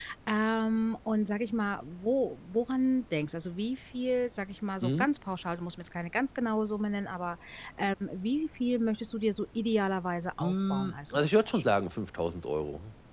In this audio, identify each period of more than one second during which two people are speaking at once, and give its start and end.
10.4-11.7

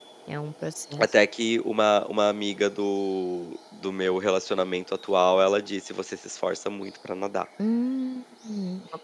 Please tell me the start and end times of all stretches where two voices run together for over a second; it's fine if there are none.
none

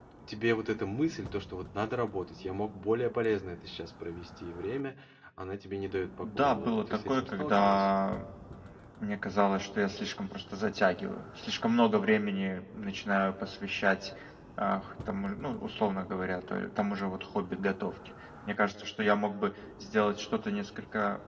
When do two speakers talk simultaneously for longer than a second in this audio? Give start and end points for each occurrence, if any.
6.2-7.9

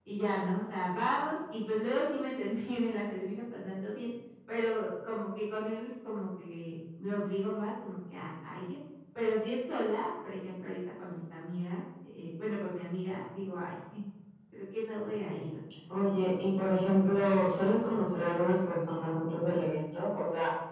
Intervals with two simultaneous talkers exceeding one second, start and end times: none

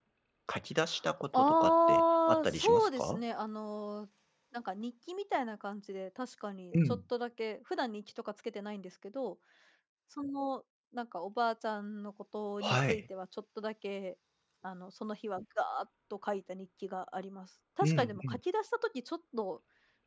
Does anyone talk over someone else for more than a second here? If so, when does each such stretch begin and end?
1.3-3.2

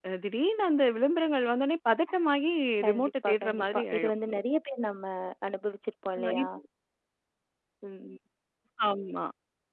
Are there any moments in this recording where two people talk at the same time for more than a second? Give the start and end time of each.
2.9-4.1

